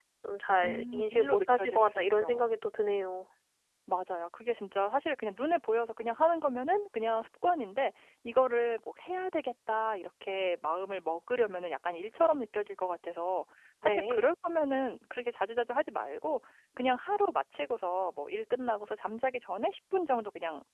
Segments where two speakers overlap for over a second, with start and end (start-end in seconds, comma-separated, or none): 0.6-2.6